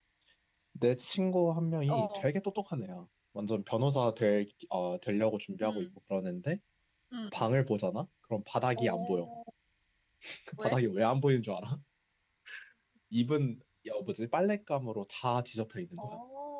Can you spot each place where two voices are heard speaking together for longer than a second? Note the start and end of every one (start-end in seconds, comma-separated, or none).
none